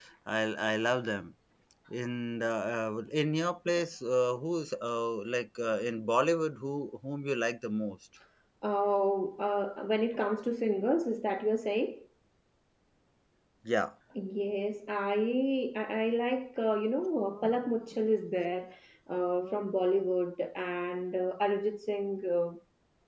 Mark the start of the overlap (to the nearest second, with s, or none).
none